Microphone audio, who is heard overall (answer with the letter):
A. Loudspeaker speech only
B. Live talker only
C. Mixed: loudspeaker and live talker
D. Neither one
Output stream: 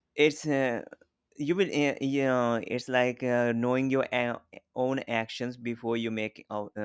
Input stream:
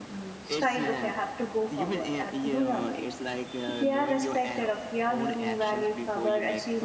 C